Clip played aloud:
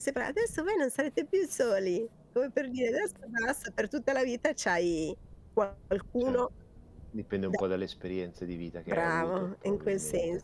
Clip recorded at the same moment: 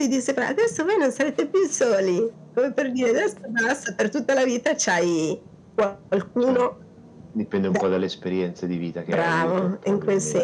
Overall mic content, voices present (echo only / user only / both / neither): echo only